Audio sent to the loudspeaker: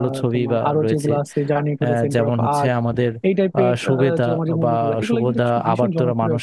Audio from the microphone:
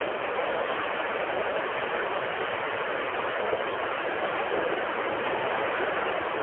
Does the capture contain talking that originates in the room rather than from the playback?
No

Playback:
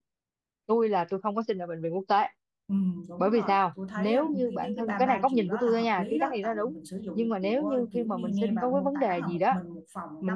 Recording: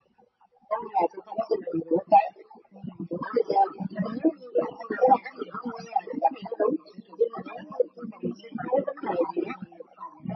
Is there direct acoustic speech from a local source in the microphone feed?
No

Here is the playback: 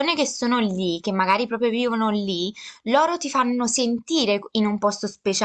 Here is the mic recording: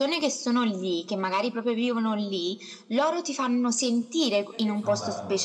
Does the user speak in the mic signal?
Yes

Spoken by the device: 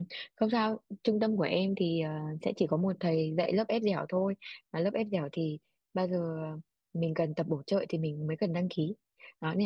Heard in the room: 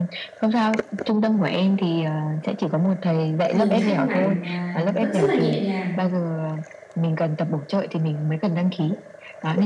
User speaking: Yes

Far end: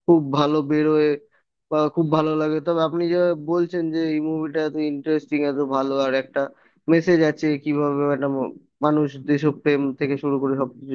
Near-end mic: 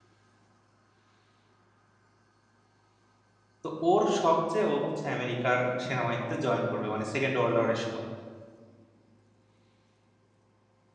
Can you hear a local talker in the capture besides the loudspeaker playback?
Yes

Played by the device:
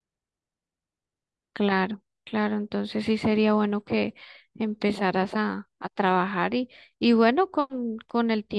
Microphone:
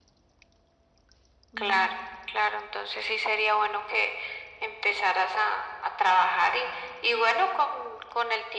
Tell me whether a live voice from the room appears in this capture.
Yes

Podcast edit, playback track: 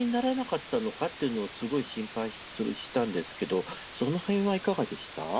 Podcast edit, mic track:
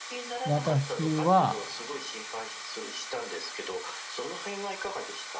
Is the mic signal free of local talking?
No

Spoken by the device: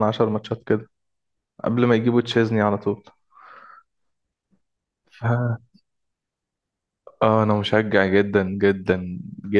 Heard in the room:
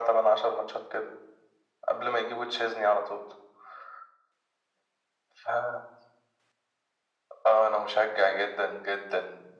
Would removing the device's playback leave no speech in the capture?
Yes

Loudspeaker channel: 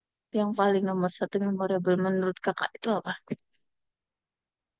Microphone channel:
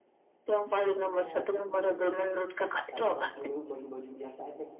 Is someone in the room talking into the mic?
Yes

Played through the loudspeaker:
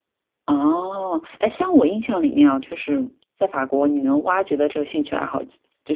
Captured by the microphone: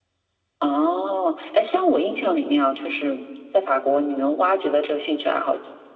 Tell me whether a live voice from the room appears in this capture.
No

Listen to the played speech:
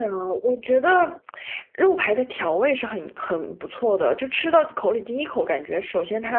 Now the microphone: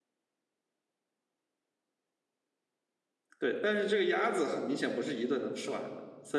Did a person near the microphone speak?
Yes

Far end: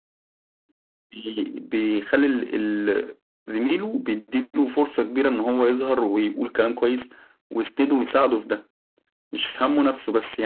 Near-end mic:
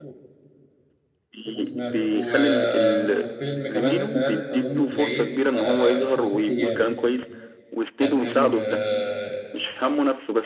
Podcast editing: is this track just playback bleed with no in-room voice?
No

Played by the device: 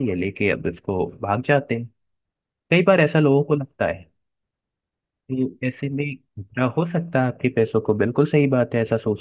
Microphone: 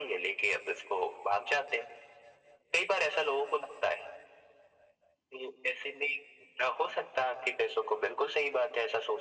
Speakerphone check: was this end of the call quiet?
Yes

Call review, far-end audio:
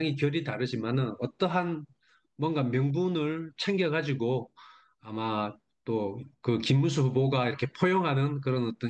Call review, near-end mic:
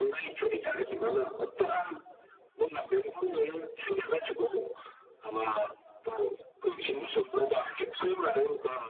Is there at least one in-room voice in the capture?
Yes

